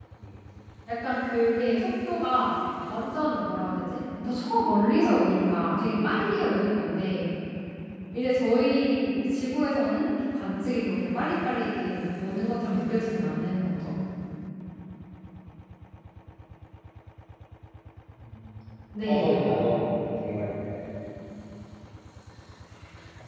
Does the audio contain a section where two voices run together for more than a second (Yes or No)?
No